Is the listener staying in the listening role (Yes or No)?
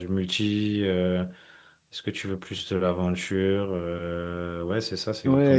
No